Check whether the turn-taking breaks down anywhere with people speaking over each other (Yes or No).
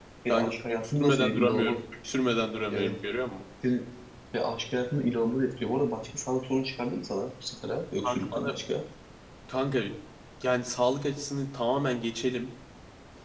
Yes